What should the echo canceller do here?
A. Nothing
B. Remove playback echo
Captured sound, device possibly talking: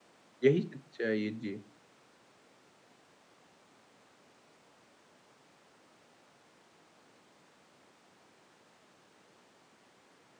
A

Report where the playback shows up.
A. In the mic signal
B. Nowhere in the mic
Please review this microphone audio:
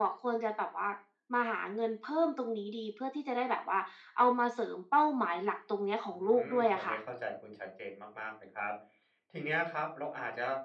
A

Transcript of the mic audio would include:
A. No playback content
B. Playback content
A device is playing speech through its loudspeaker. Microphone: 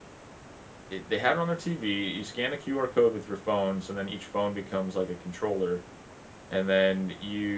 A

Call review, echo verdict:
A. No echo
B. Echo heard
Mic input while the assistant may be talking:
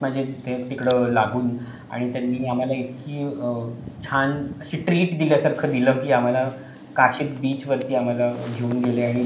A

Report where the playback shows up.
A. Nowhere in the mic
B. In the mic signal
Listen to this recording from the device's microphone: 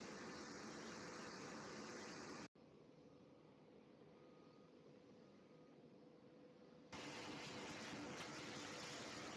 A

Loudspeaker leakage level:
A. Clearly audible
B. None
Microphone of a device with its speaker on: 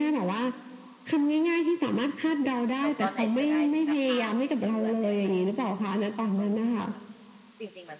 A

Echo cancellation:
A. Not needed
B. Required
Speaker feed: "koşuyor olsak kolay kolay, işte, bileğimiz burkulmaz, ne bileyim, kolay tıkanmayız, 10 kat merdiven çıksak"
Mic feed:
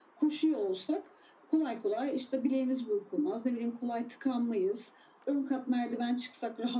B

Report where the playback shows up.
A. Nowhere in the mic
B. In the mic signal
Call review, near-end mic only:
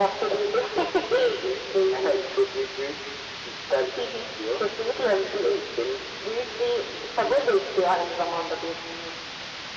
B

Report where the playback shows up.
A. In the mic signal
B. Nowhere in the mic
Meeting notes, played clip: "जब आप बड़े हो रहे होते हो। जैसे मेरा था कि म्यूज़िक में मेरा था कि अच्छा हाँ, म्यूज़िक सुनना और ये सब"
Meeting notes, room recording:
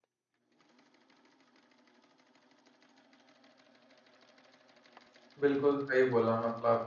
B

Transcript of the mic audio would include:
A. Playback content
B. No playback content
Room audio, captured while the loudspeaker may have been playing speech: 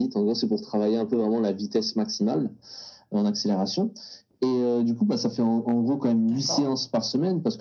A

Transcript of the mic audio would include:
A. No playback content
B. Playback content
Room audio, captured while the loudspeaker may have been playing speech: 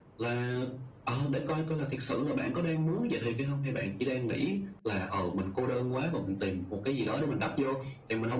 B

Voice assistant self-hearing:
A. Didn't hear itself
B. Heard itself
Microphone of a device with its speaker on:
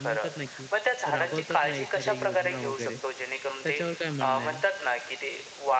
B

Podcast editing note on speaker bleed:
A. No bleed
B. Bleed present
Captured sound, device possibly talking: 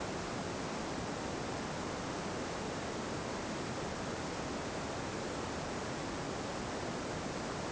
A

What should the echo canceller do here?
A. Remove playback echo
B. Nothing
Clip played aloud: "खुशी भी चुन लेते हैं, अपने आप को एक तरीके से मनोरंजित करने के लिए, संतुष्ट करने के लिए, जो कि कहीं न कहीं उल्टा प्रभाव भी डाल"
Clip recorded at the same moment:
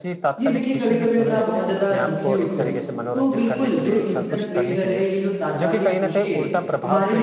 A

